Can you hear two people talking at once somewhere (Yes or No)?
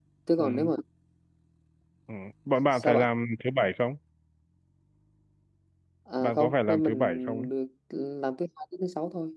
Yes